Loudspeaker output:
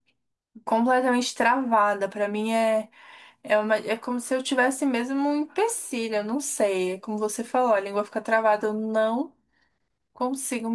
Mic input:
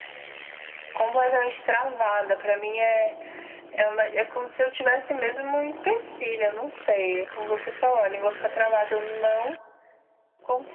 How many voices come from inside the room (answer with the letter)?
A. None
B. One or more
A